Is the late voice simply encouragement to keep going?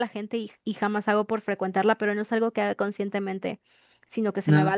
Yes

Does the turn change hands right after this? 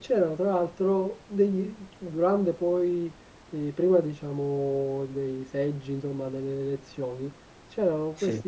No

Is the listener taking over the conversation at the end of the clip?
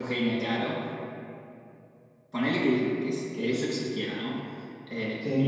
No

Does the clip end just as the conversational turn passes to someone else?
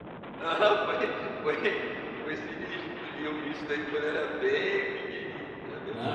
Yes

